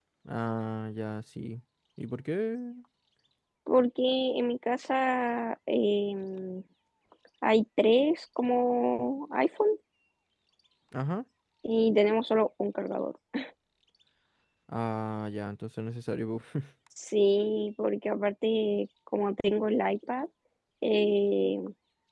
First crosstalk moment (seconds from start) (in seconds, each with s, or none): none